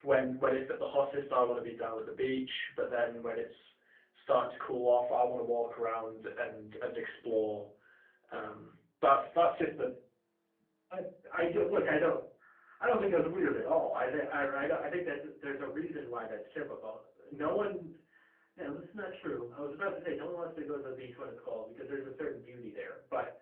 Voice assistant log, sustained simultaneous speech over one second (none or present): none